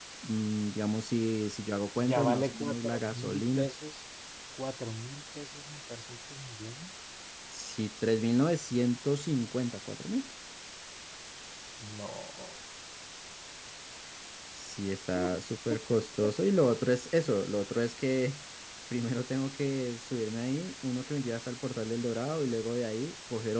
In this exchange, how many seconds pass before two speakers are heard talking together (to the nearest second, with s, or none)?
2 s